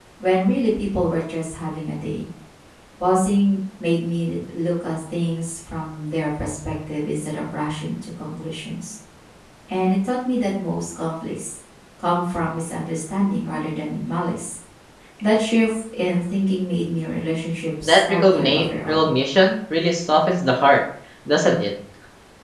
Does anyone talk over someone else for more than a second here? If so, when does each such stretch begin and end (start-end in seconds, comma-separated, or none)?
17.8-19.1